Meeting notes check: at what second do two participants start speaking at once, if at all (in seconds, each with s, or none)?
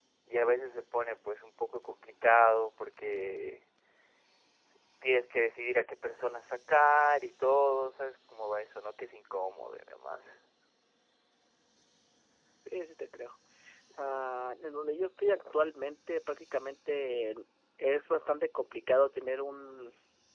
none